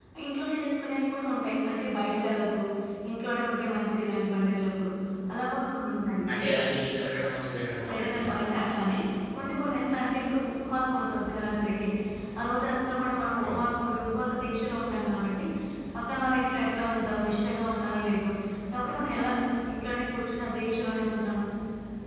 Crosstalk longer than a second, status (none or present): none